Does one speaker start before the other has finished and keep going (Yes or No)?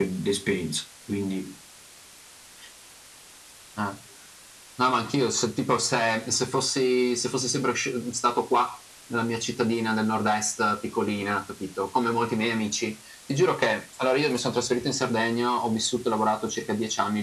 No